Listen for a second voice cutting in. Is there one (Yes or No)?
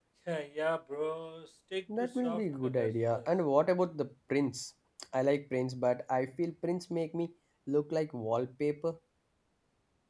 Yes